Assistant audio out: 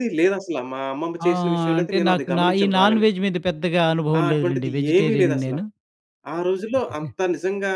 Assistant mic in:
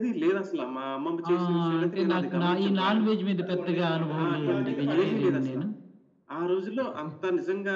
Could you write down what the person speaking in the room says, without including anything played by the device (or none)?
అది వండేసిందన్నమాట. ఈ ఆకైతే పడేసింది.